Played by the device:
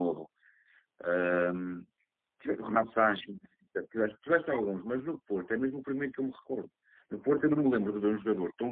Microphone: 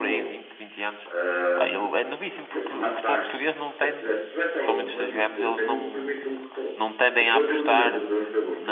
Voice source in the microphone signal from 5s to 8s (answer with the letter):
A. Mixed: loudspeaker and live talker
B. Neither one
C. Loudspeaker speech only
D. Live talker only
A